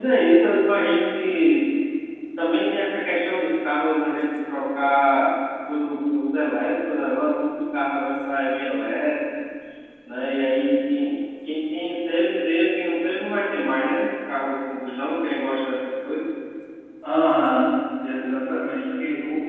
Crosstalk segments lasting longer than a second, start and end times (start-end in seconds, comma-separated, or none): none